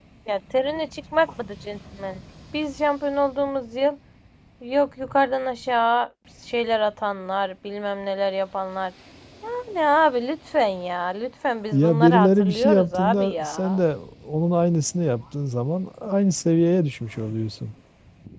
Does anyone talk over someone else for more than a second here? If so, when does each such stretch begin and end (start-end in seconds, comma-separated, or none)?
11.7-13.8